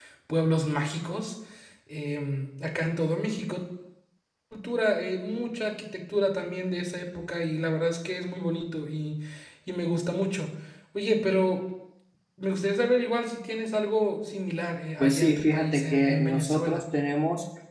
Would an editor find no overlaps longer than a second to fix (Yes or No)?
No